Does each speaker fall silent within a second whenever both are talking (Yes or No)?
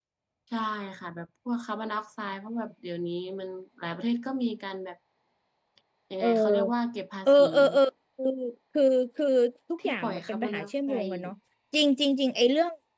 No